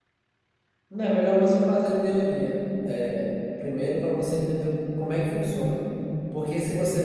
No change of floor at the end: Yes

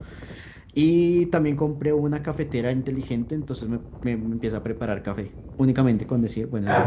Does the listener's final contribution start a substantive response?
Yes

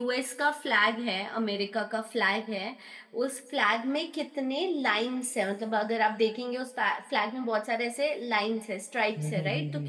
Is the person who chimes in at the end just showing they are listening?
Yes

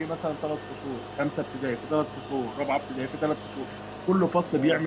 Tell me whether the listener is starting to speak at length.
No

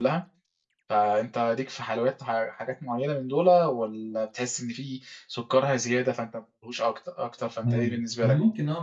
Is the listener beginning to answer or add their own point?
Yes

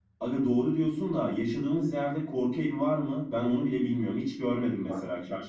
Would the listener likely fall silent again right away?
No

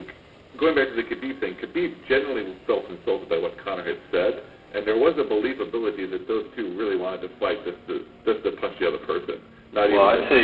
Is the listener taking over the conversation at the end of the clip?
Yes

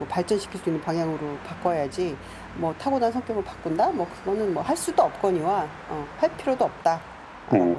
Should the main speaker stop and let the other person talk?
Yes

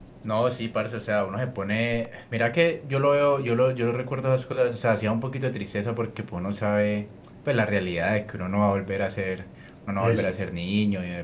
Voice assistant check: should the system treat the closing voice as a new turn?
No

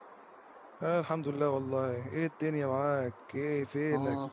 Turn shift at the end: Yes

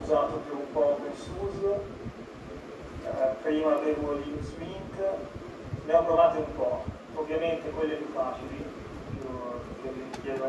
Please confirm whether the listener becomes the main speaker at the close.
No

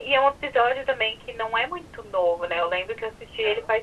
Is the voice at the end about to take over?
No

